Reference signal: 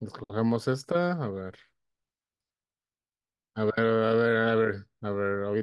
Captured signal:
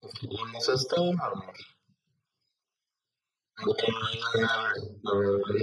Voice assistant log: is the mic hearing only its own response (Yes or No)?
Yes